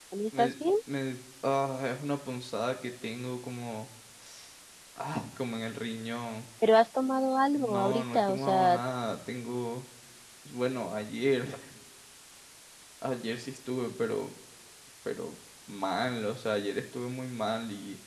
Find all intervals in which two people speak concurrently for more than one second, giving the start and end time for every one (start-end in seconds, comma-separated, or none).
7.5-8.8